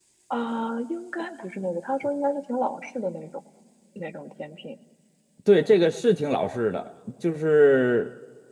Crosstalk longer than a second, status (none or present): none